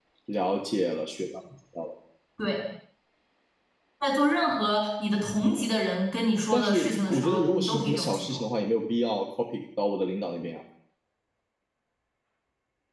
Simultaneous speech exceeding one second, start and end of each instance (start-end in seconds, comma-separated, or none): 6.5-8.4